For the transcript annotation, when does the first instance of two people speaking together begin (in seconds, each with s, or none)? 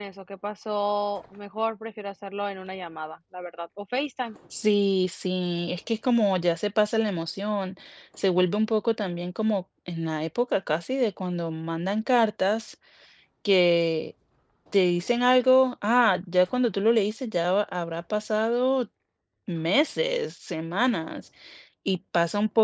none